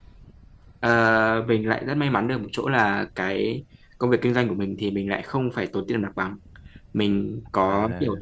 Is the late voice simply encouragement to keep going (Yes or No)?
Yes